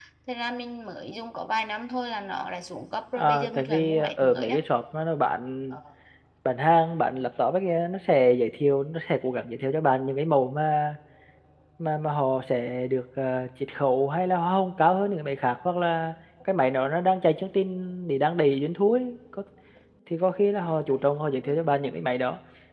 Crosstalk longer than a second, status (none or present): present